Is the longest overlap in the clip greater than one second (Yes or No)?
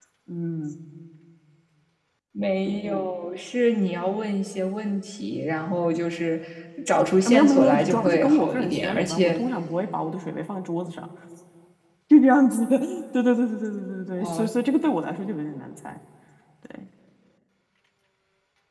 Yes